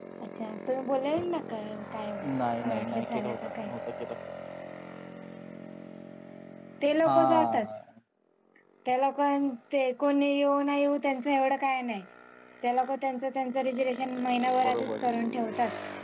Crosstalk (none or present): present